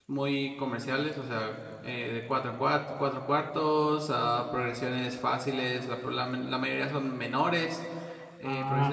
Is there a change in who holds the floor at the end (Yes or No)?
Yes